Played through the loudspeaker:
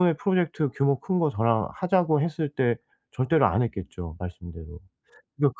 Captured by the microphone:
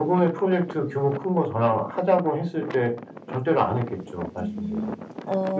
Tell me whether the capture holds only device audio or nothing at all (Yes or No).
No